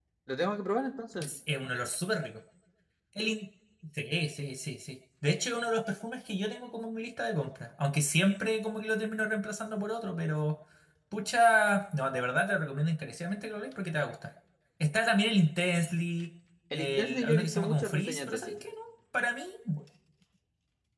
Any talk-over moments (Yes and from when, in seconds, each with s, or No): Yes, from 16.7 s